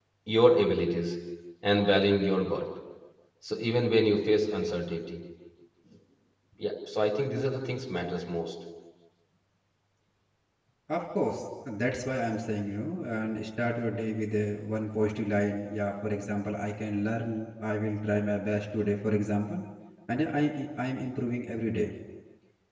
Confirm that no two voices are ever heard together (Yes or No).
Yes